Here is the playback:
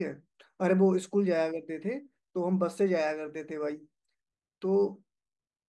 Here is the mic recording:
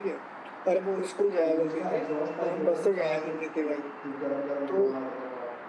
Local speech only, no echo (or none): तो जो उसका एग्जॉस्ट पाइप होता ना जहाँ से वो धु- गरम गरम धुआं आता था बाहर